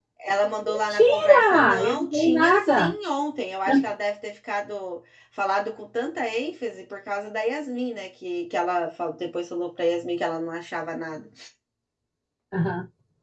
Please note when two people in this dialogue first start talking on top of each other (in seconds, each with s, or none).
0.7 s